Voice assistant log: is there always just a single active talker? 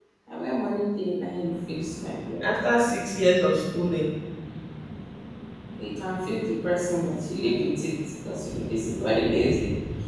Yes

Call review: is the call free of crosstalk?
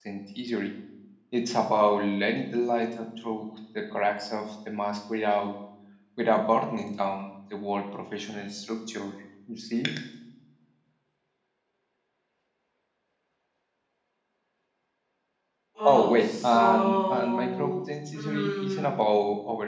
No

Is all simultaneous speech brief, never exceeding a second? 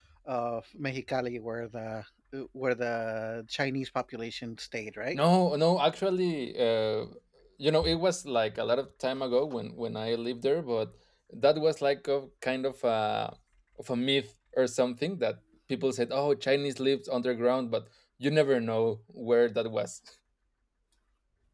Yes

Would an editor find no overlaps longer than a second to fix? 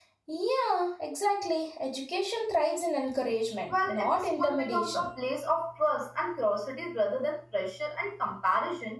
No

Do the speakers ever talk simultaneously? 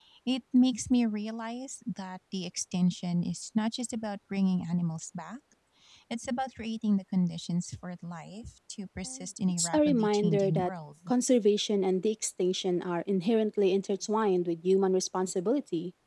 Yes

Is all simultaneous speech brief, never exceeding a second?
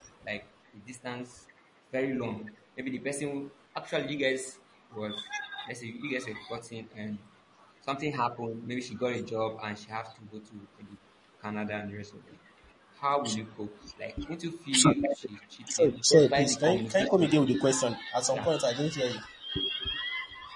No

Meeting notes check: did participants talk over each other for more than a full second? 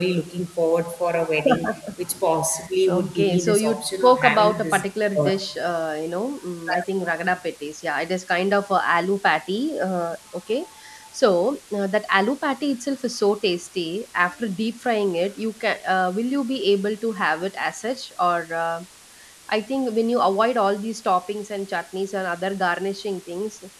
Yes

